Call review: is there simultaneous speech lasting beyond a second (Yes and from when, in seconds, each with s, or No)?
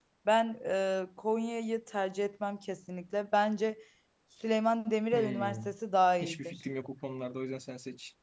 No